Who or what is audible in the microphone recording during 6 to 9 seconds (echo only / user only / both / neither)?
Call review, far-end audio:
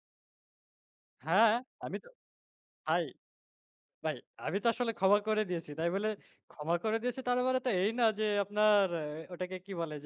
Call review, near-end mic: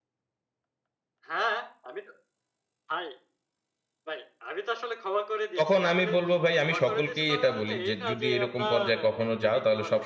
both